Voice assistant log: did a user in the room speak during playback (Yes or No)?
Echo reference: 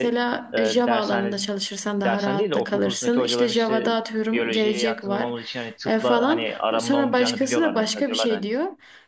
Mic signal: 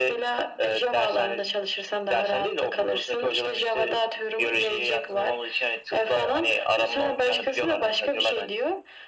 No